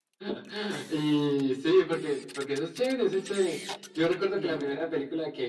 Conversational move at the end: listening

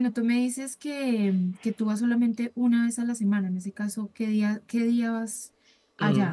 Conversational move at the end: taking over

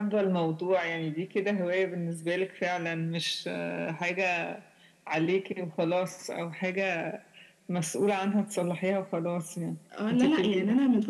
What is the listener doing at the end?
taking over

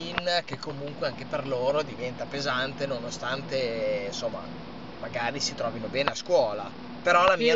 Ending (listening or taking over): taking over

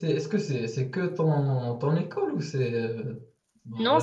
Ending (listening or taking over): taking over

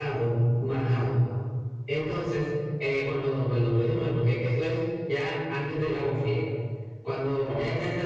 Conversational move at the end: listening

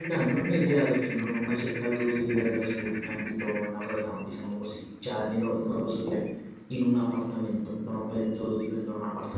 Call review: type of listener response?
taking over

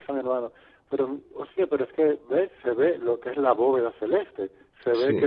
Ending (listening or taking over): listening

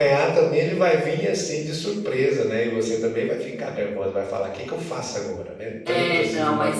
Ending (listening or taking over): taking over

